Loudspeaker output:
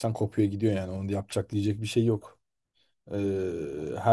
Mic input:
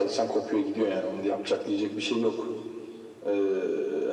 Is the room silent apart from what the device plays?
Yes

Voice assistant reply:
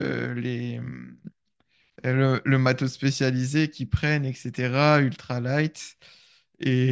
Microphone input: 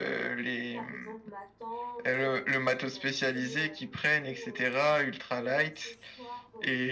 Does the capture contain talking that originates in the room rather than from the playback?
Yes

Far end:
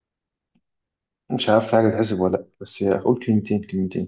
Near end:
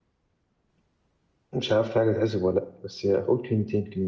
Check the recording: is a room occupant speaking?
No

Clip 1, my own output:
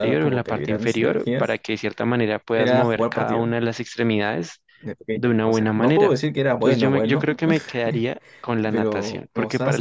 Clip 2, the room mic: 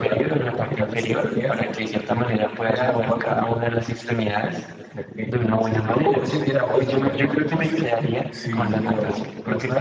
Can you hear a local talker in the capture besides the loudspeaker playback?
Yes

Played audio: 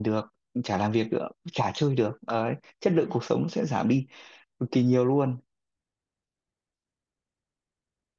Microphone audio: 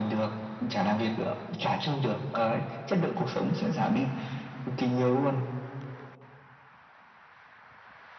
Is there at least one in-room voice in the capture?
No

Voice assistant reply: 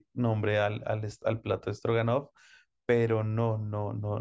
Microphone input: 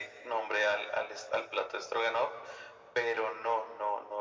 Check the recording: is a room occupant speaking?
No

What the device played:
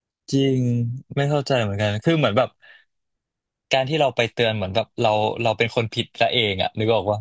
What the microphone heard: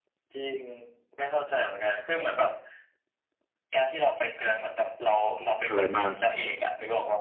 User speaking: Yes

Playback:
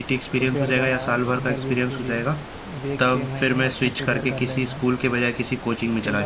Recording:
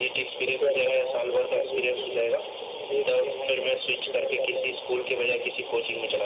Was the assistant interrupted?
No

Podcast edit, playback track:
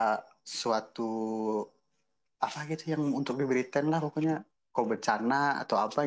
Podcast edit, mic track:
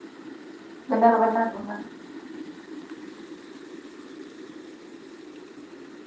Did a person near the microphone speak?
Yes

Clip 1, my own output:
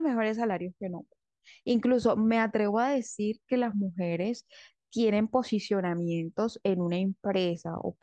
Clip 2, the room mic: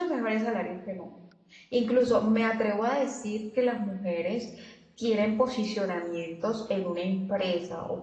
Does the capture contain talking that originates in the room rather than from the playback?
No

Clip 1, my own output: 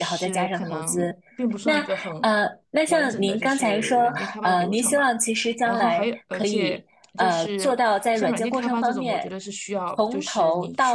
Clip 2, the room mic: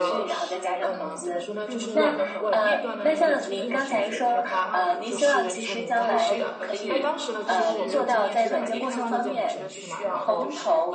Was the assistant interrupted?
Yes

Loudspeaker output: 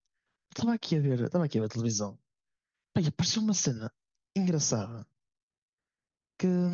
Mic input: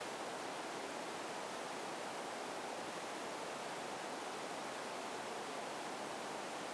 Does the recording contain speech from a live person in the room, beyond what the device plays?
No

